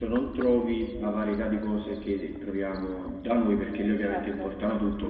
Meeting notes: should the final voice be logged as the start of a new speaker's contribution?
No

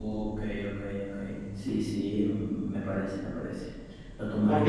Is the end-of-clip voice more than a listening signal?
Yes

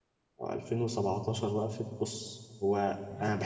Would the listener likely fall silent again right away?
Yes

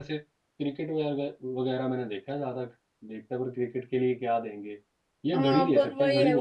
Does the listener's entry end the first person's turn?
Yes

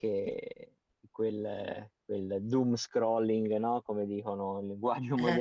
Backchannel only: Yes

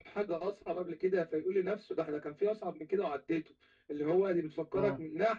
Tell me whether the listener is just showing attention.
Yes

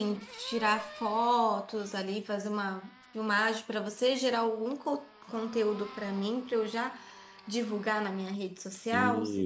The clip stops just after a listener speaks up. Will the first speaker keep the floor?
No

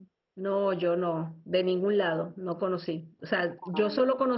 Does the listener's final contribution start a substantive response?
No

